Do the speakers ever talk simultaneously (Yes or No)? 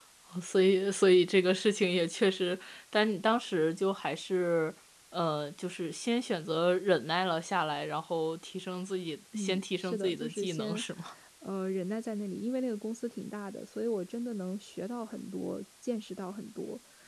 Yes